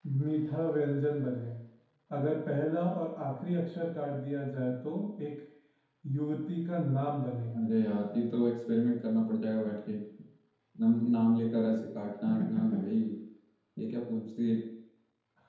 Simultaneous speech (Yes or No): No